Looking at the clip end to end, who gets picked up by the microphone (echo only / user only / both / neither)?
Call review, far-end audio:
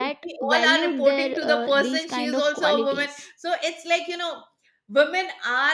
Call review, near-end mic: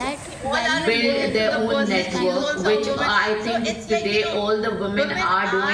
both